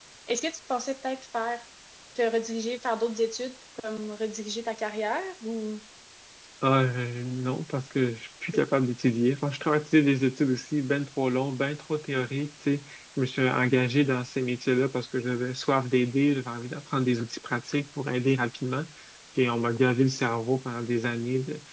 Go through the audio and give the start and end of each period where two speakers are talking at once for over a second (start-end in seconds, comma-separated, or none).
none